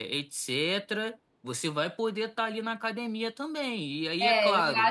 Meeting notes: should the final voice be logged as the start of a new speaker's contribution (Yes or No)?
Yes